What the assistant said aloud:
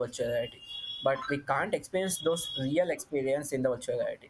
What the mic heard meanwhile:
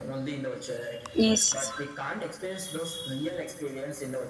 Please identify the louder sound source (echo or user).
user